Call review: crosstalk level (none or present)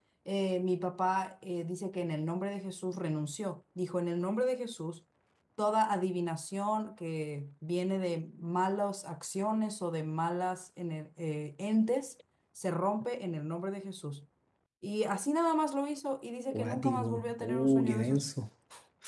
present